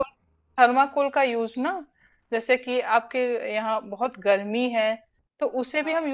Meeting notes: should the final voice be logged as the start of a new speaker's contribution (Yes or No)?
No